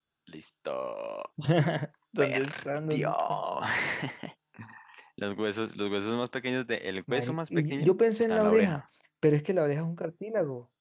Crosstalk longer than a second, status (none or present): present